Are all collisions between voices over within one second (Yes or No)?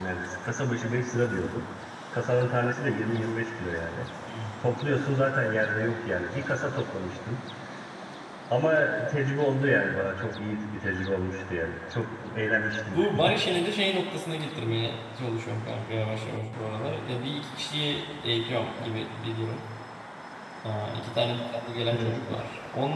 Yes